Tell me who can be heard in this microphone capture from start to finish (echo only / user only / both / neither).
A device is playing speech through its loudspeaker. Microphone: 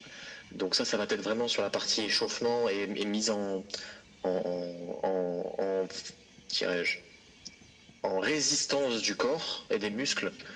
echo only